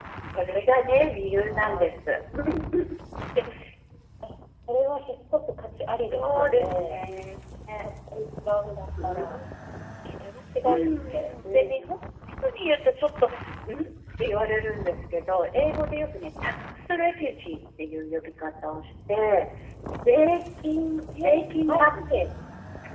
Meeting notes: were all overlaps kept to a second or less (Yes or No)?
No